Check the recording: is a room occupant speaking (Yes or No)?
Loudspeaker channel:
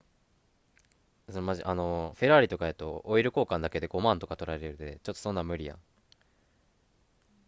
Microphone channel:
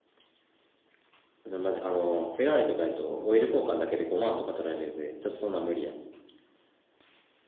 Yes